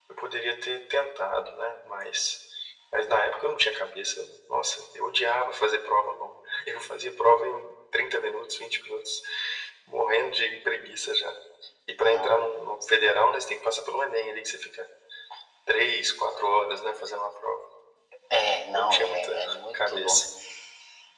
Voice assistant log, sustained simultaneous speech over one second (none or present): present